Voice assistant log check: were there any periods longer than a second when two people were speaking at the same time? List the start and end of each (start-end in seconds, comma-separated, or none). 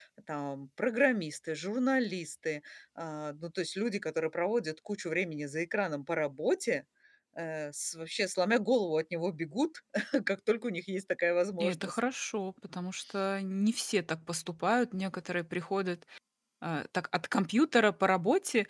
none